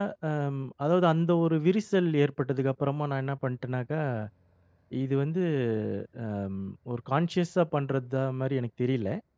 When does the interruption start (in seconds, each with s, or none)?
none